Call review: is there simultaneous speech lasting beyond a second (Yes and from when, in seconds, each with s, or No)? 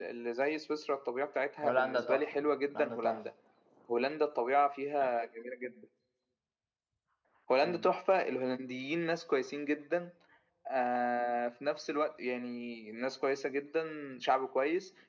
Yes, from 1.6 s